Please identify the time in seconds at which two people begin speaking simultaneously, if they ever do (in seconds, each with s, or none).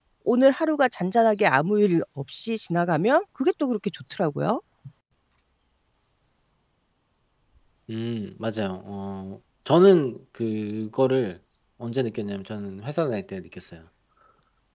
none